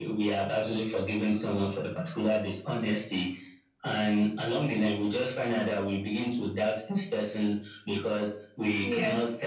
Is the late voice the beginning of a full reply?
No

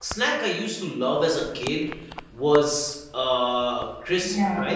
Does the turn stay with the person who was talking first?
No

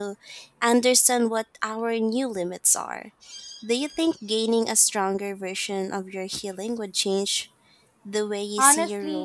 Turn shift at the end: Yes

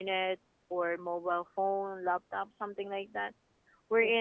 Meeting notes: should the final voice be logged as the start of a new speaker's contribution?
No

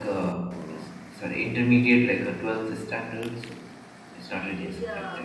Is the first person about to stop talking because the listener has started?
Yes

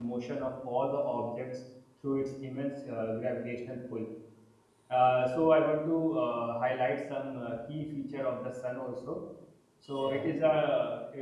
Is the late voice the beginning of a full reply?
No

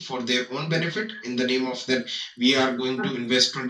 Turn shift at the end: No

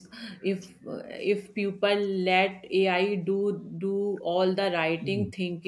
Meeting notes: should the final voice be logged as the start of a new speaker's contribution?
No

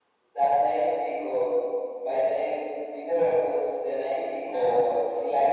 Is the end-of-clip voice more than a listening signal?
No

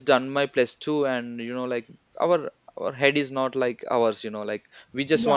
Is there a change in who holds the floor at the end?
No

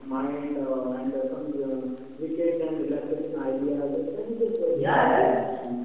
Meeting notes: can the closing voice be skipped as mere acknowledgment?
No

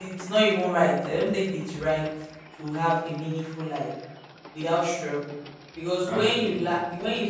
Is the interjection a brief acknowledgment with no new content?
Yes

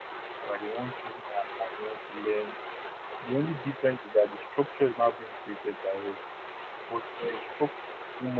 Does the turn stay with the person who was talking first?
Yes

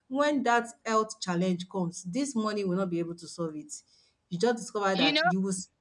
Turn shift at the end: No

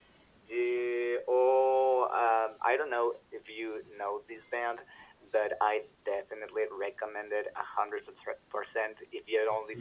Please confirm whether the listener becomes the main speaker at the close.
No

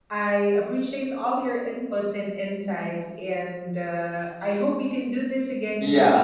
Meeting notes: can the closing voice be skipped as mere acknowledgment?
No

